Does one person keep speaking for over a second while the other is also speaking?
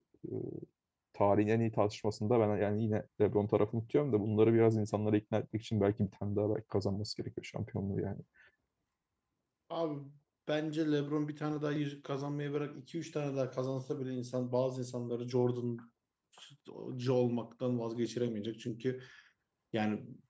No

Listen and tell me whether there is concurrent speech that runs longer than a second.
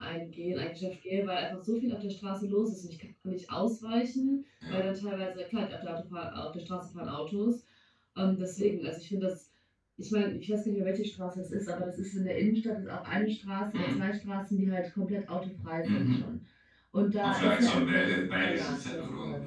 Yes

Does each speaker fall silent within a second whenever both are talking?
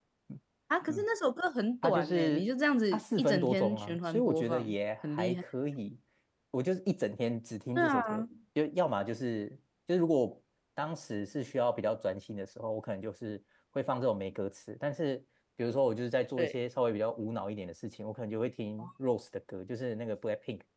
No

